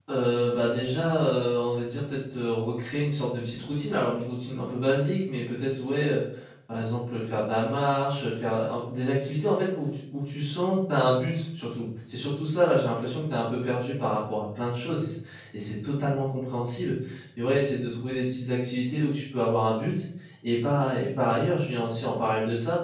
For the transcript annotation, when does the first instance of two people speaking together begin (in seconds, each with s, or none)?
none